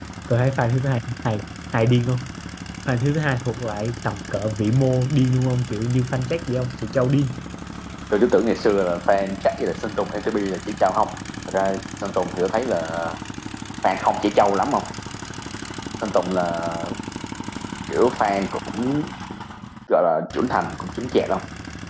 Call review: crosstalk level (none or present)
none